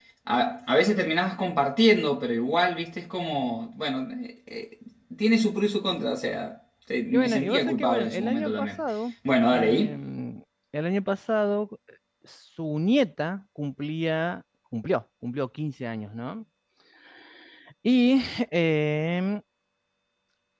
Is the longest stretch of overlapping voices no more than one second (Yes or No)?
No